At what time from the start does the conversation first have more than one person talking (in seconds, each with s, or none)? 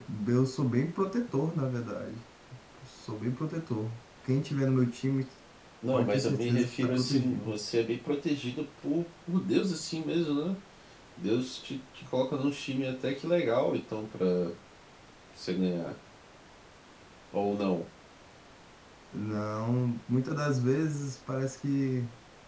5.9 s